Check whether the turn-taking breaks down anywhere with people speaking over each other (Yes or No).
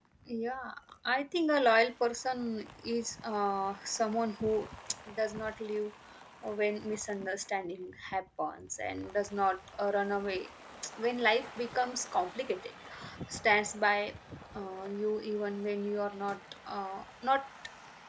No